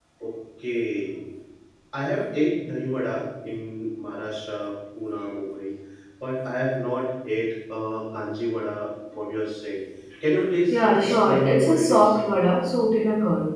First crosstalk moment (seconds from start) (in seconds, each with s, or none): 10.7 s